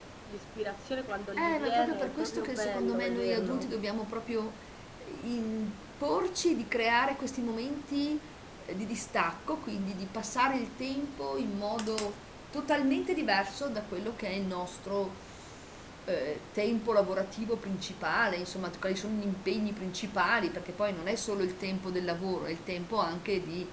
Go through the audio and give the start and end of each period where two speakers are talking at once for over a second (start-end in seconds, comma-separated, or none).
1.4-3.8